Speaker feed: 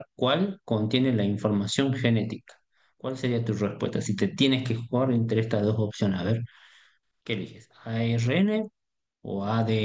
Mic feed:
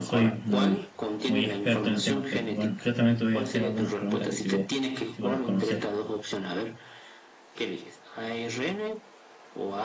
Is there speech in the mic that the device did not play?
Yes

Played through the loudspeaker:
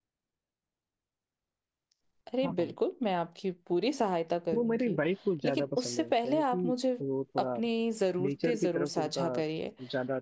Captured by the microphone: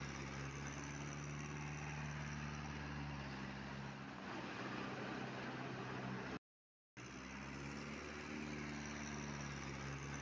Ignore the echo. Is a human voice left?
No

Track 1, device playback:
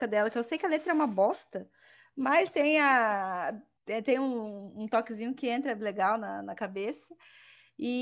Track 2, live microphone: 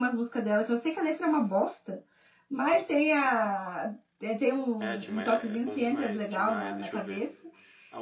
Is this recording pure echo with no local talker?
No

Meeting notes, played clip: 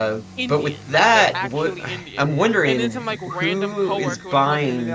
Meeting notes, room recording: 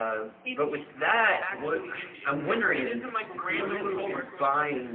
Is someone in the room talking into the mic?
Yes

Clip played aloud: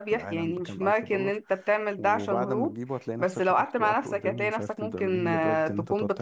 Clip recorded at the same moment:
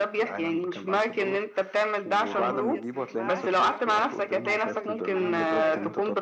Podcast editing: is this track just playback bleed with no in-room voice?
No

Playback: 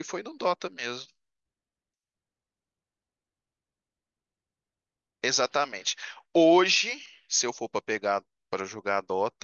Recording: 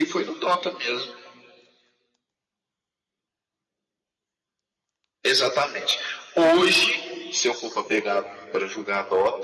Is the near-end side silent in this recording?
Yes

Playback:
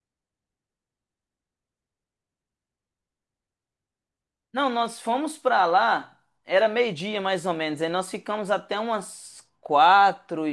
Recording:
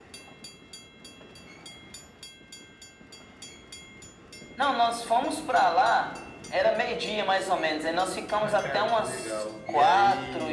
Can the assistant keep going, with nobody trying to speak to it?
No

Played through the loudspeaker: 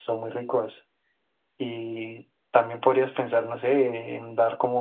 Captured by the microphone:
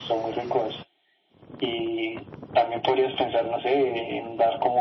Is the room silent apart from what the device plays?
Yes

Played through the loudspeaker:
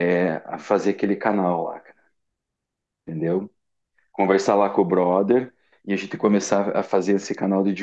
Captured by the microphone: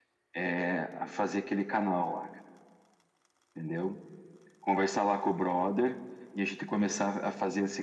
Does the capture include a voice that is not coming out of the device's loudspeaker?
No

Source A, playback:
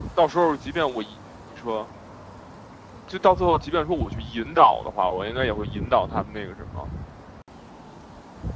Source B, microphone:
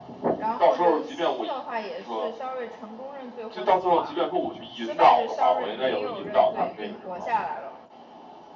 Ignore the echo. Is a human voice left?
Yes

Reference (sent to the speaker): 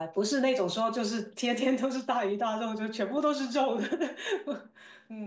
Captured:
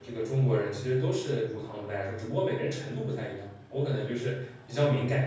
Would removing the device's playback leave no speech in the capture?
No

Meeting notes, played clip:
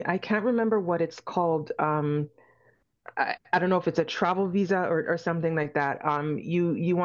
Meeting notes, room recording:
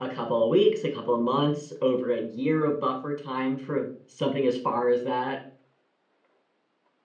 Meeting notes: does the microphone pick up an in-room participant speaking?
Yes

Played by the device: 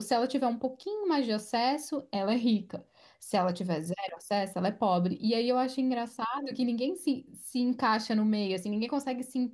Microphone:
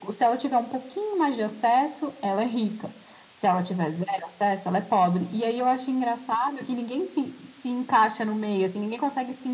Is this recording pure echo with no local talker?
Yes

